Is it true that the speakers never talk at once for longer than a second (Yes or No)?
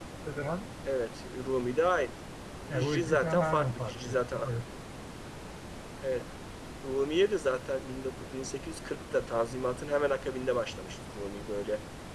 No